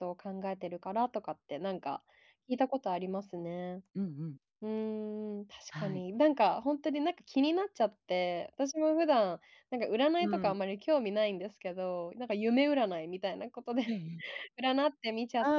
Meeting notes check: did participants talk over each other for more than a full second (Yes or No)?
No